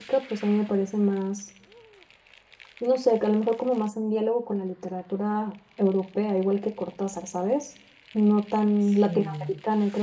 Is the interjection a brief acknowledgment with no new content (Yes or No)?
Yes